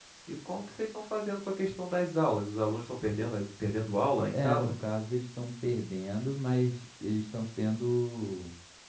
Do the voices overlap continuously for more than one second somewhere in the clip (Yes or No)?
No